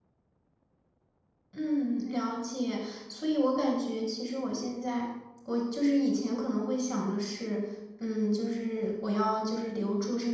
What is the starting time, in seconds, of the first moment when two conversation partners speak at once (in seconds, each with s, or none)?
none